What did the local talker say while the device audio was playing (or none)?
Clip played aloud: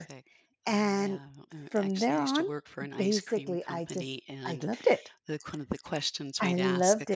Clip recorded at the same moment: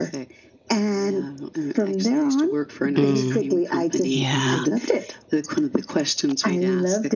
mm, yeah.